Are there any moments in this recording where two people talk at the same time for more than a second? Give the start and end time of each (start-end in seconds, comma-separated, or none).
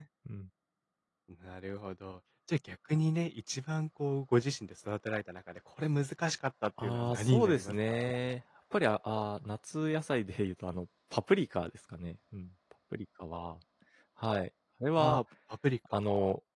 6.8-8.1